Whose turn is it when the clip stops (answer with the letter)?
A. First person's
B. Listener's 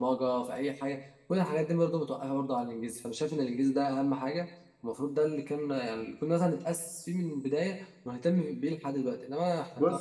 B